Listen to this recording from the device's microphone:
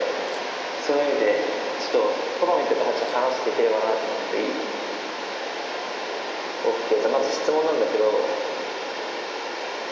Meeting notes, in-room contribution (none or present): none